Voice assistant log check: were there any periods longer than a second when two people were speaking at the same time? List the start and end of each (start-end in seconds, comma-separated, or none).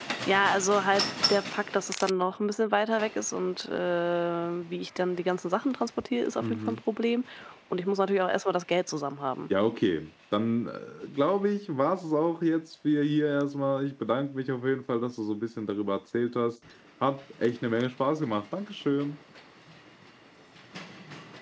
none